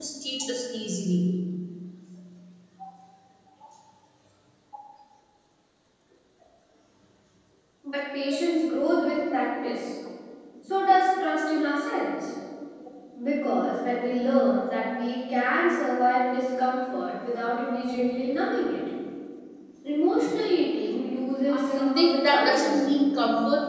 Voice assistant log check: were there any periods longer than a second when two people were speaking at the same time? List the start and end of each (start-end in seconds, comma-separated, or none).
21.5-22.9